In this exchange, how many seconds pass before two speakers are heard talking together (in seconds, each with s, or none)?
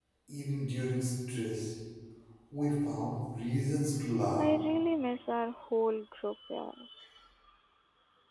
none